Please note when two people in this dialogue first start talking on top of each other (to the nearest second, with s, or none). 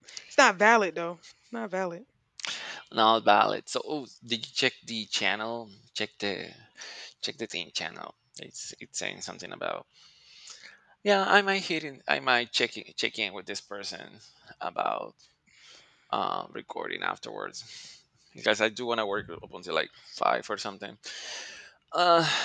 none